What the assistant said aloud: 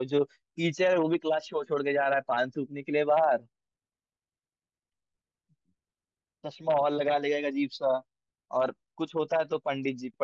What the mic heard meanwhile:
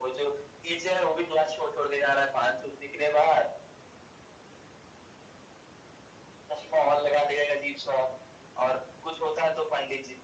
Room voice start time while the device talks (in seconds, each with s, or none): none